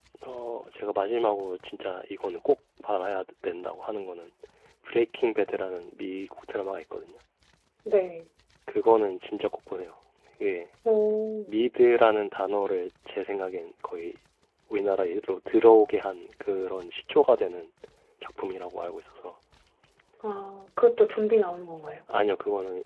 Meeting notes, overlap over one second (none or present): none